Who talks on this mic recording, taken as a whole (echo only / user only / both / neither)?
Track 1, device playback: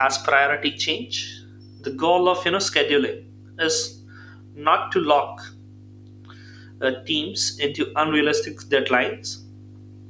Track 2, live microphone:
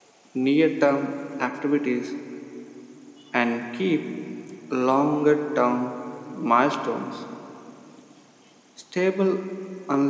user only